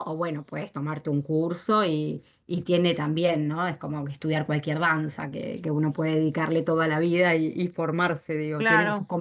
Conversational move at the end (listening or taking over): taking over